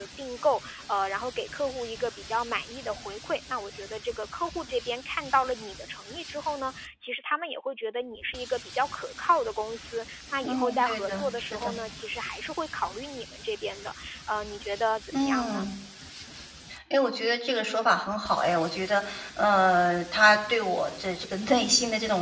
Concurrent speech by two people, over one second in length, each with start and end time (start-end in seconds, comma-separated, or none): 10.4-11.7